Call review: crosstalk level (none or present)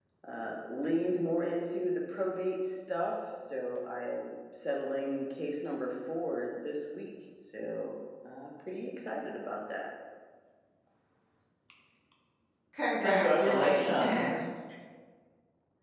present